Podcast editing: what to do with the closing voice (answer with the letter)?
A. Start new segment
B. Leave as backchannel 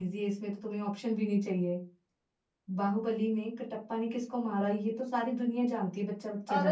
A